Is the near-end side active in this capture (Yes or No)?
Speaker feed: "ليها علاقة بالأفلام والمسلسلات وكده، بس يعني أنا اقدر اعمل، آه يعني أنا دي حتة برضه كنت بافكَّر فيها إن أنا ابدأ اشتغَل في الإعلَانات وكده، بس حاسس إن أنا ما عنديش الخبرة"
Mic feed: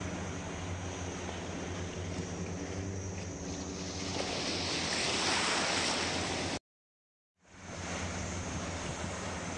No